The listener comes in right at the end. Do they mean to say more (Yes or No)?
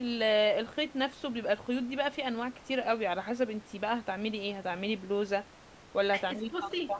Yes